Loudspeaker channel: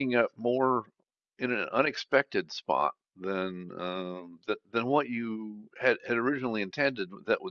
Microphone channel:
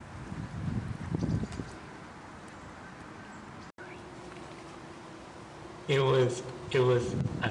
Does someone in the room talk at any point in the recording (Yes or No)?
Yes